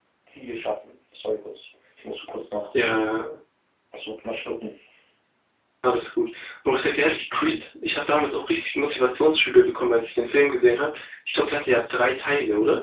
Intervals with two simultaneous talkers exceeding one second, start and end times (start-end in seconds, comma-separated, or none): none